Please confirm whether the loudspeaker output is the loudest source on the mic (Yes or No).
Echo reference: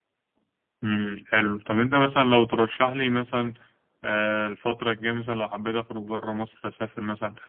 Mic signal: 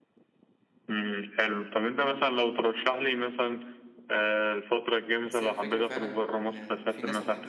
Yes